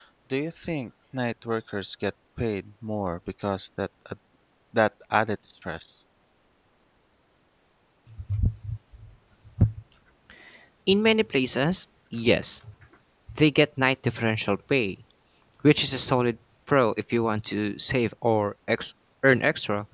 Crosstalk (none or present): none